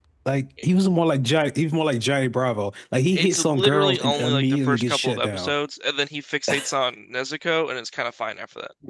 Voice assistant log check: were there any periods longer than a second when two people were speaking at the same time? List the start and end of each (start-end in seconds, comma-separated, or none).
3.1-5.5